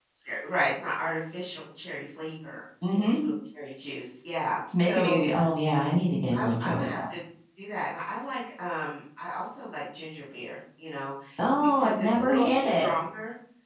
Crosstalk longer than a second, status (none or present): present